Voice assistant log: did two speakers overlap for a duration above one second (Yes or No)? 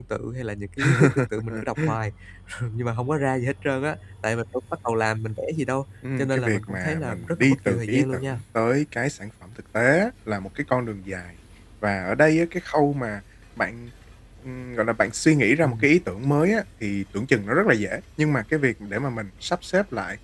Yes